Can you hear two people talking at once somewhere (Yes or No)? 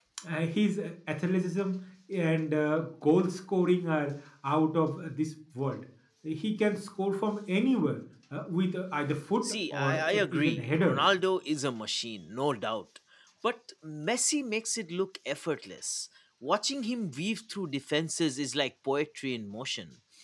Yes